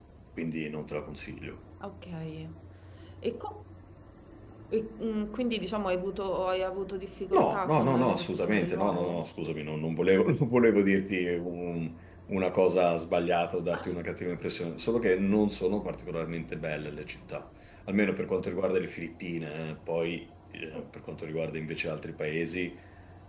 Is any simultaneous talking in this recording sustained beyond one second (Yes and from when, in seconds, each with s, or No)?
Yes, from 7.3 s